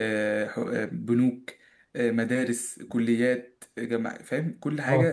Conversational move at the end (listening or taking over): listening